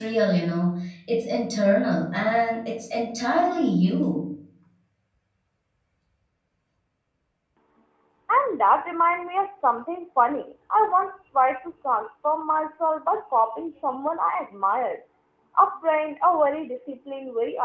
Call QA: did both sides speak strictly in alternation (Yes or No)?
Yes